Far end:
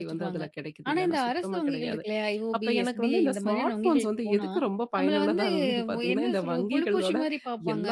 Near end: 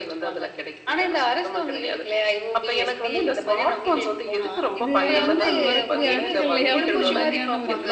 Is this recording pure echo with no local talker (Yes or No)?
No